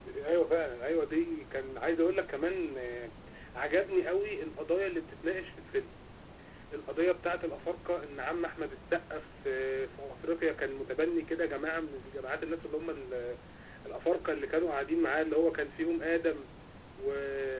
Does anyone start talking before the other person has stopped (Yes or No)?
No